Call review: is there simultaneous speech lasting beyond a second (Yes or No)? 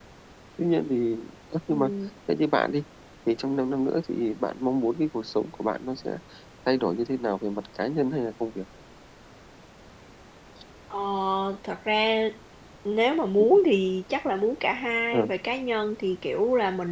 No